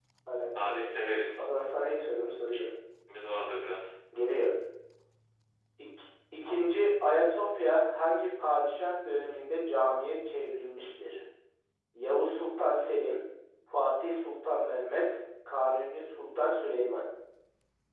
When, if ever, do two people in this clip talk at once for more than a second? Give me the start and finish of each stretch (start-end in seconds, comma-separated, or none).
none